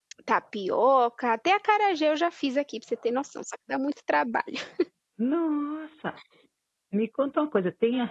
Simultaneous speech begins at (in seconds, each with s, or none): none